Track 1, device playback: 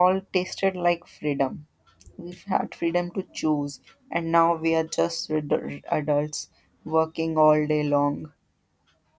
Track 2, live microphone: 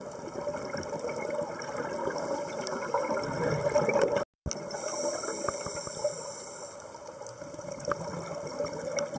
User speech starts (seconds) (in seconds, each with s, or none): none